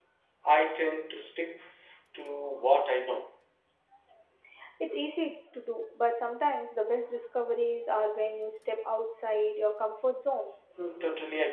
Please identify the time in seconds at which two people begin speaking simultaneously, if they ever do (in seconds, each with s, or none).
none